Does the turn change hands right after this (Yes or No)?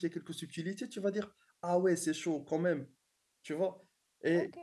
Yes